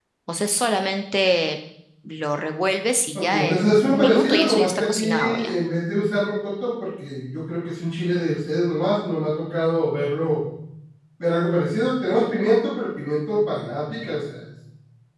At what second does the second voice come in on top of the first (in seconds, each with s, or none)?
3.1 s